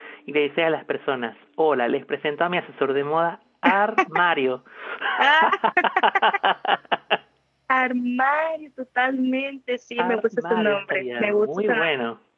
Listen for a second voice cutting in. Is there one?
Yes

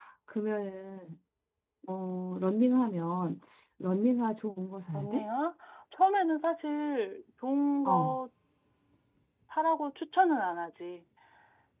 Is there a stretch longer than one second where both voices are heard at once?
No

